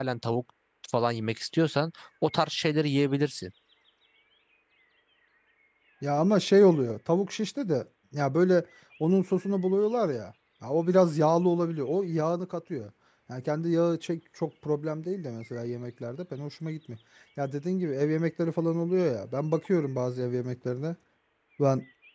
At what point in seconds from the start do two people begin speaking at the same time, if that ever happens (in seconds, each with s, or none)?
none